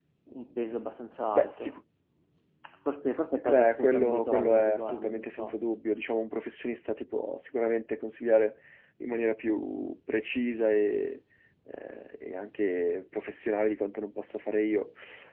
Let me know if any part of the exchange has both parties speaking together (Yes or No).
Yes